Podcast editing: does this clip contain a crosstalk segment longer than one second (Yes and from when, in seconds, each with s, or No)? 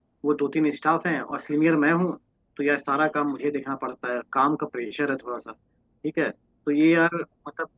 No